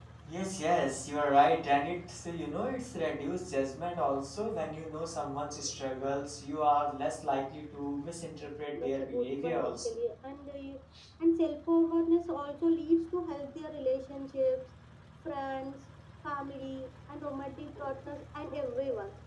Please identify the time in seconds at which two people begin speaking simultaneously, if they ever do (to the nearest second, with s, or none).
9 s